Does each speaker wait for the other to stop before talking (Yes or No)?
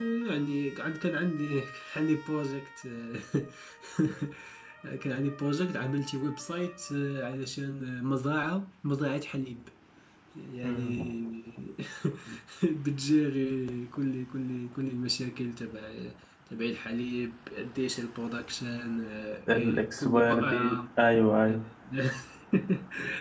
No